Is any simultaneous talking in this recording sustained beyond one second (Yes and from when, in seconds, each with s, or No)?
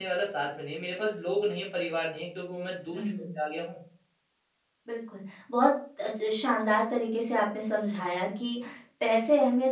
No